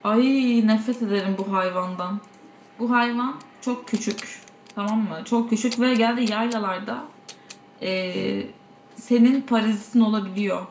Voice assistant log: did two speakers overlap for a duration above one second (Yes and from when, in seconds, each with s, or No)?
No